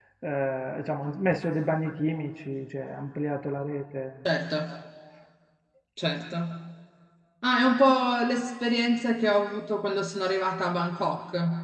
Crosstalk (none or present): none